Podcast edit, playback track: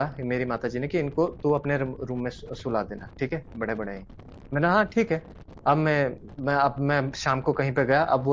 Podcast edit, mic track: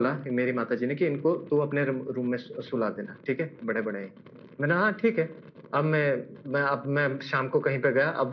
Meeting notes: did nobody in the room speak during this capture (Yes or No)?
Yes